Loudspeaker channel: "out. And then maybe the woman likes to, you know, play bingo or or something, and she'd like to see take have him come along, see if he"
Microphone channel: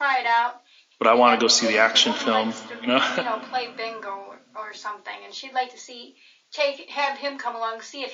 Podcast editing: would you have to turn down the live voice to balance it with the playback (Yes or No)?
Yes